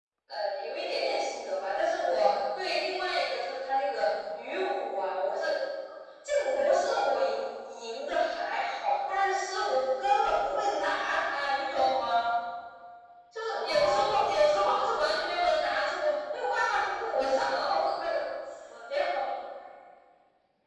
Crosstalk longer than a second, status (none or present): present